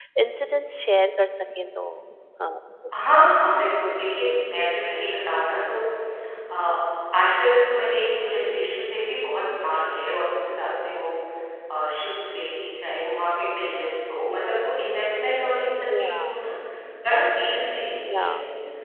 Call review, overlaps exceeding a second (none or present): none